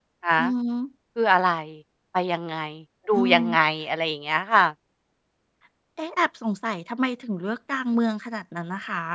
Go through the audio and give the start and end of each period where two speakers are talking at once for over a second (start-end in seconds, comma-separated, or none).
none